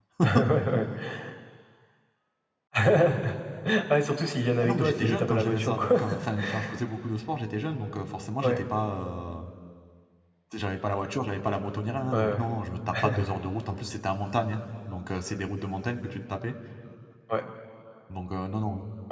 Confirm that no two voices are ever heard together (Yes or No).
No